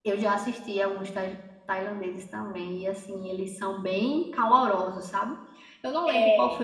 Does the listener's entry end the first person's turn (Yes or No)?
No